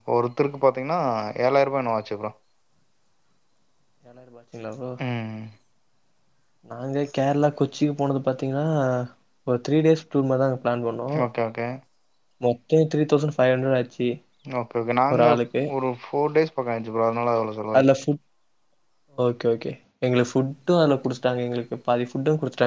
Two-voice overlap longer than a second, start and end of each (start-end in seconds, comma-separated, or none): none